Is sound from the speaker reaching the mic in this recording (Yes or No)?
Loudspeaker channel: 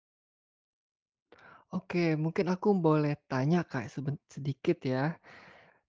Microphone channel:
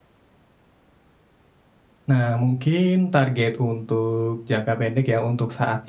No